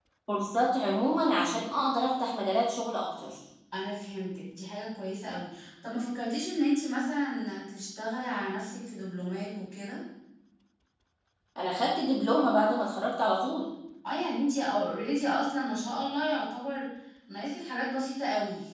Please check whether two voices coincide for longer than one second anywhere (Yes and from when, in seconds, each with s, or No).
No